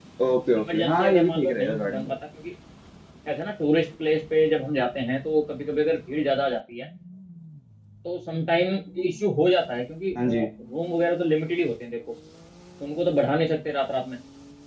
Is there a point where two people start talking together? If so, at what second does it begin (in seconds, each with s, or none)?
0.6 s